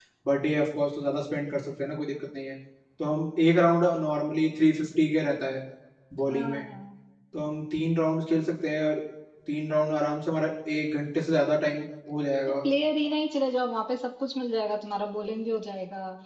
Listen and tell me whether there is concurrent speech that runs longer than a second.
No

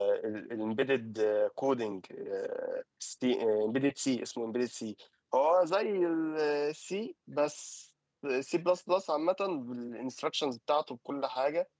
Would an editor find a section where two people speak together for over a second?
No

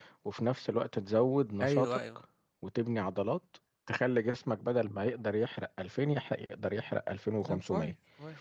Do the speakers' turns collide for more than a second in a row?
No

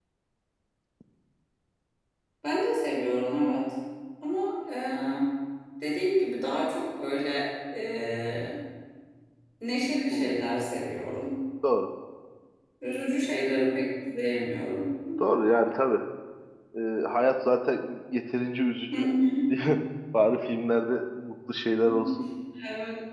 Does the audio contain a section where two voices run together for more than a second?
No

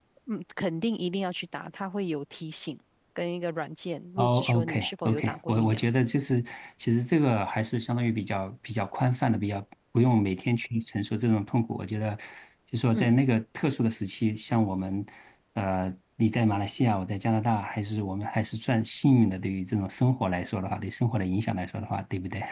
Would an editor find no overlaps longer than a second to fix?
No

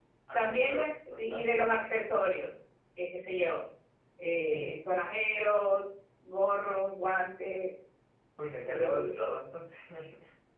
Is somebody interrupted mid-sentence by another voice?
Yes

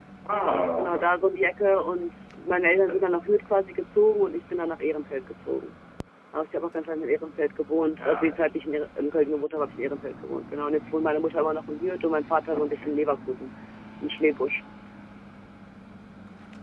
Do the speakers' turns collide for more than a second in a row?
No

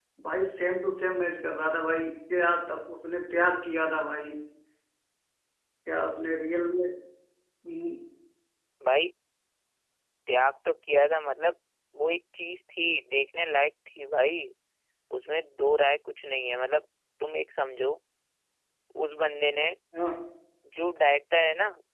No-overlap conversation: Yes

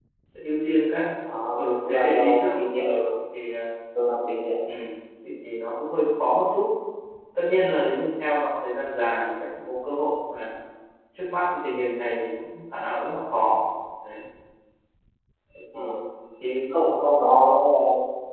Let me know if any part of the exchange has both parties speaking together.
Yes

